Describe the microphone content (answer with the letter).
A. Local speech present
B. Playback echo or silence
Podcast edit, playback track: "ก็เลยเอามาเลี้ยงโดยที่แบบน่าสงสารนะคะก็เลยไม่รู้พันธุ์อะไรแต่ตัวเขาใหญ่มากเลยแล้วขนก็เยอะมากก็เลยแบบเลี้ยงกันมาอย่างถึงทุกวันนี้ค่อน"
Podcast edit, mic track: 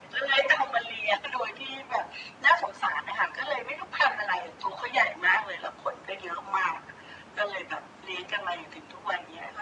B